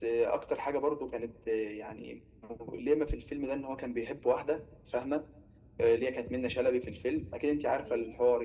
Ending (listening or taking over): listening